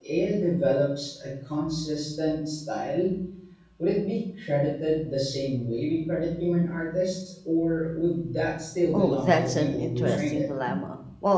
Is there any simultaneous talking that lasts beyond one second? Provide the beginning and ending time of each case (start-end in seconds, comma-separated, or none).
8.9-10.4